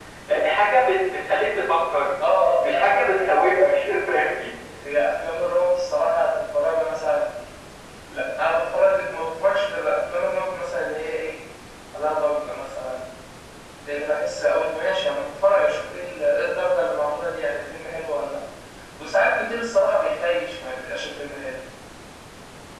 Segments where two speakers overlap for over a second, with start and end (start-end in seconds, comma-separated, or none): 2.5-3.9